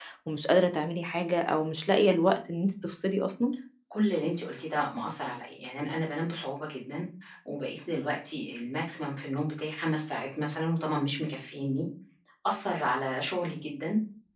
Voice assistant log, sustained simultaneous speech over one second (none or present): none